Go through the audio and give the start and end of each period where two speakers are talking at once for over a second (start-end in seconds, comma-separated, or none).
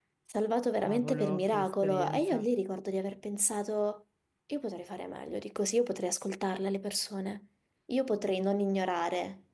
0.8-2.5